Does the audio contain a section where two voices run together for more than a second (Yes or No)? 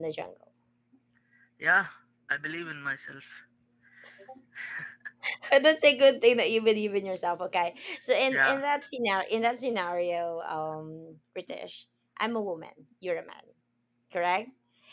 No